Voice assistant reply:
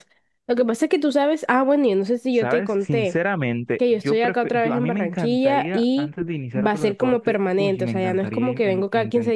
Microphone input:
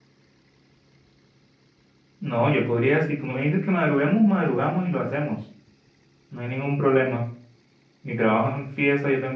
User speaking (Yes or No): Yes